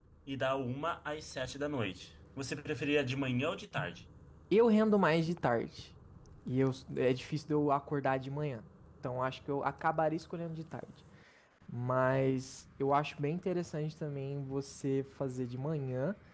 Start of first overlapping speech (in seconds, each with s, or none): none